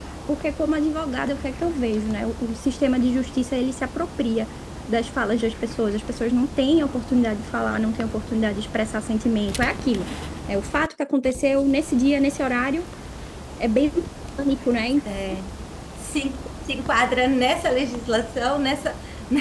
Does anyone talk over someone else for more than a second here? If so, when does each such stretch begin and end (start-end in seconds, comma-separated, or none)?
none